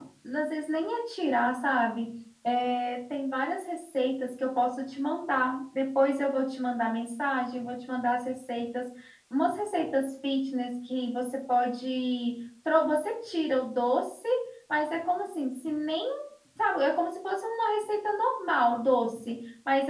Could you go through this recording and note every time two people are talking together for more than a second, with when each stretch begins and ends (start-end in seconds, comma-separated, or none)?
none